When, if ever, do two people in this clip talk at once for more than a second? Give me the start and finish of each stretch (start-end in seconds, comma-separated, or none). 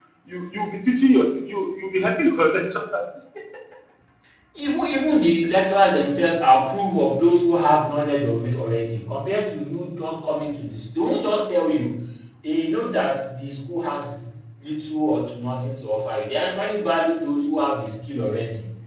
none